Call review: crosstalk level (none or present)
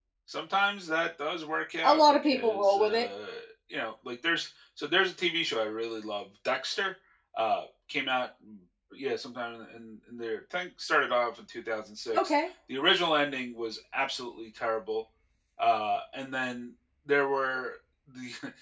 present